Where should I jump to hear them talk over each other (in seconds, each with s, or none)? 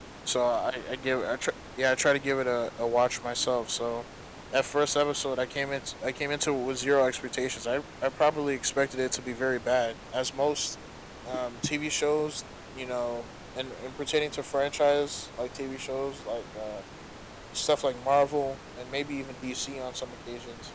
none